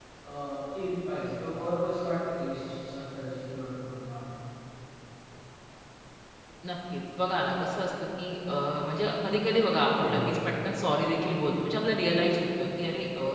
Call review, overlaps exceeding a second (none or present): none